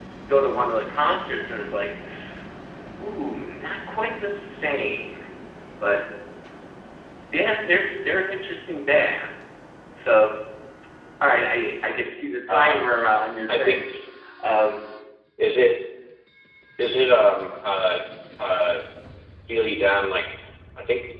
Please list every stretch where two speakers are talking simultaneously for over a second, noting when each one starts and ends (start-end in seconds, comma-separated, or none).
none